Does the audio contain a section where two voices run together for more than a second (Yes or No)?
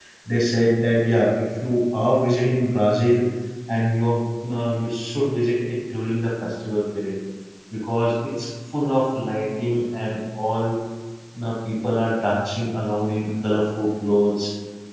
No